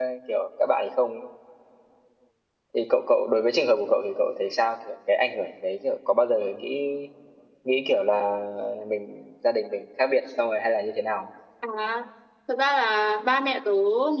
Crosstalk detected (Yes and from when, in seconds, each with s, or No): No